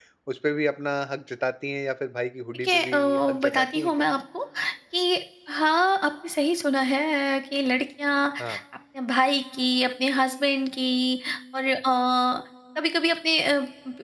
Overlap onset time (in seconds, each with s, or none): 2.6 s